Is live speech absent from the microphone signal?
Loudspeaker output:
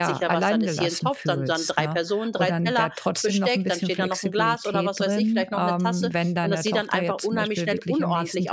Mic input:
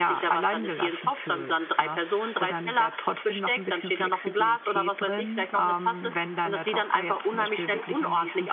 Yes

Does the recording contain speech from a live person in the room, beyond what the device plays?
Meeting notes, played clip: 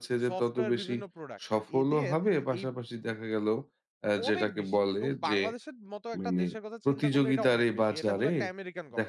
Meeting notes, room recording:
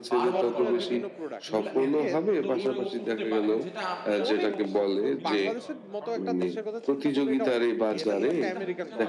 Yes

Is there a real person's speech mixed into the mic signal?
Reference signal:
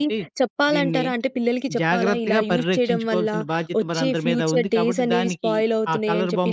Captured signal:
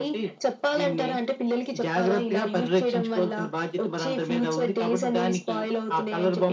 No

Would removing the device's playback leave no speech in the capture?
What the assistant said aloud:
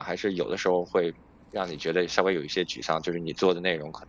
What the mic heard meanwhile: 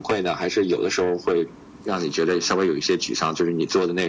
Yes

